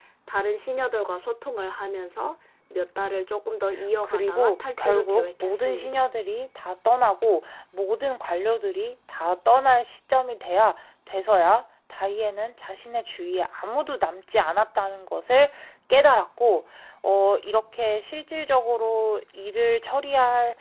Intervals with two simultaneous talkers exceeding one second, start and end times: 4.0-6.0

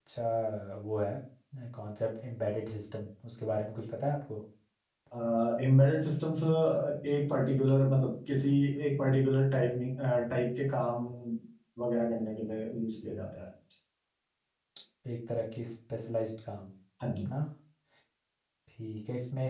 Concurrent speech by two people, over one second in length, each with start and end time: none

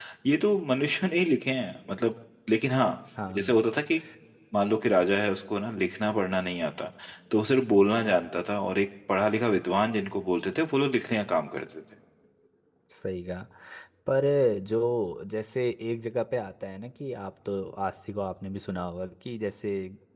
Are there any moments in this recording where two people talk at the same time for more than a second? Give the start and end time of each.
none

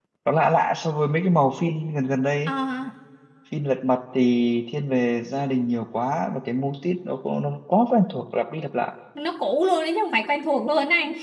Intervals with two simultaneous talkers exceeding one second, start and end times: none

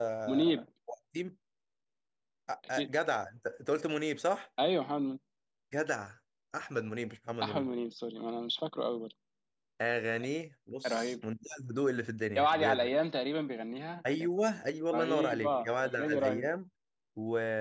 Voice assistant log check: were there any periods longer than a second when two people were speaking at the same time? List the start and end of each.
14.9-16.5

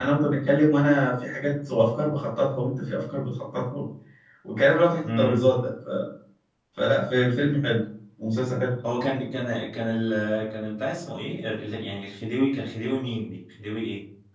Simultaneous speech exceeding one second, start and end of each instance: none

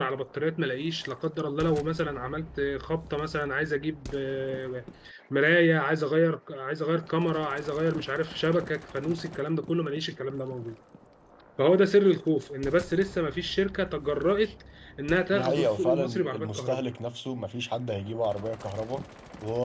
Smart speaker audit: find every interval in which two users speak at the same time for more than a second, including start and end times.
15.3-16.8

